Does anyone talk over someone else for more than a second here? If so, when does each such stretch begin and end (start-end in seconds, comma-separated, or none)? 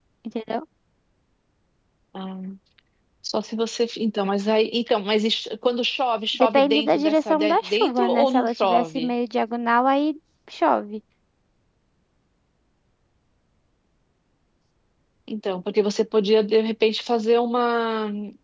6.3-9.1